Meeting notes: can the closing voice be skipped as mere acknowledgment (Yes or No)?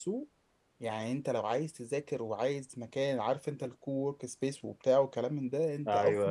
Yes